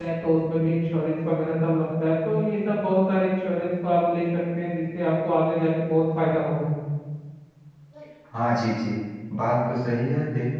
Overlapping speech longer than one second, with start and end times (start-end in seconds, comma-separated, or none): none